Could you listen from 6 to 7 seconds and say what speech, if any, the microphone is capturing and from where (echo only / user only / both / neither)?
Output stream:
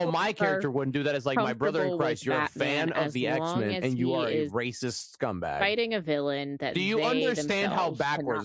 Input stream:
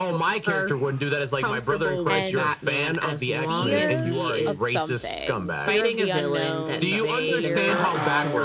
both